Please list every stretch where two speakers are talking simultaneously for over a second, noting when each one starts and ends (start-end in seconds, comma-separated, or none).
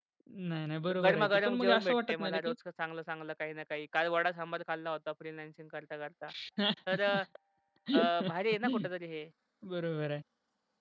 0.9-2.5